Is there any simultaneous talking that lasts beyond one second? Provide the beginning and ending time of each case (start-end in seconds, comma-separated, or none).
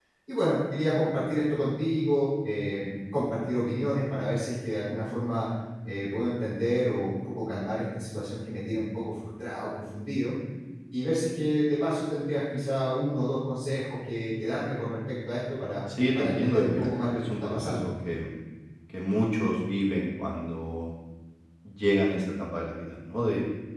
16.1-17.9